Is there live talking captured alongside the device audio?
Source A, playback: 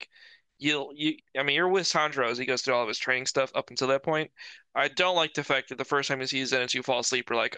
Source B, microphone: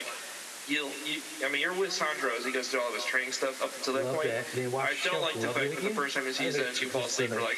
Yes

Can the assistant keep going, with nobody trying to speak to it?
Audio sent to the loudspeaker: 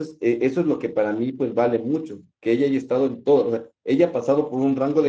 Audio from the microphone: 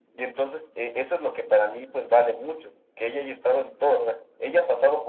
Yes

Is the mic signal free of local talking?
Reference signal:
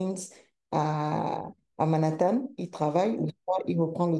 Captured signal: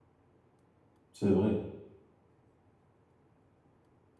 No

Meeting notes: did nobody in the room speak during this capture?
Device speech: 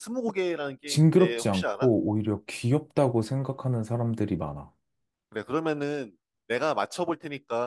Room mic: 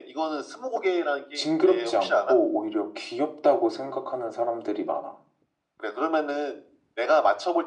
Yes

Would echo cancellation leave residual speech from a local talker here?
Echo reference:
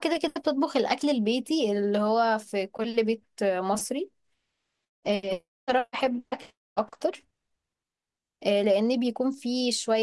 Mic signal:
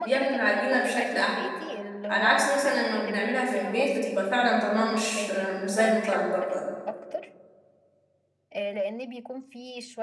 Yes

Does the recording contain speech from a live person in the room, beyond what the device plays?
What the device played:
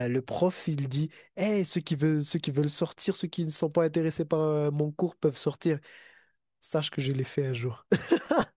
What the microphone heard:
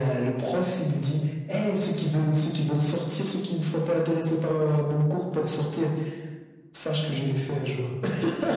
No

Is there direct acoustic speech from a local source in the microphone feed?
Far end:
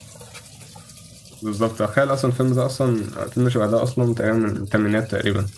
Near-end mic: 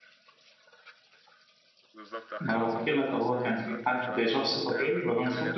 Yes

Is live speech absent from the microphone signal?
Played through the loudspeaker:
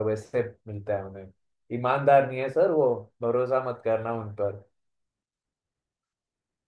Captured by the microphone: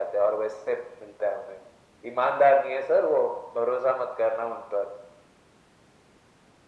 Yes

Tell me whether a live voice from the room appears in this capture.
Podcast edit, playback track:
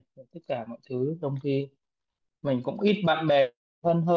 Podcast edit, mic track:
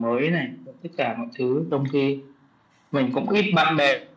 No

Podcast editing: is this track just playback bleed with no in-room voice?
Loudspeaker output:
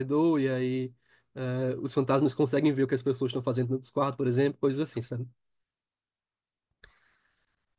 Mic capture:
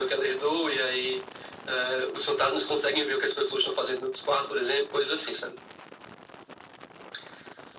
Yes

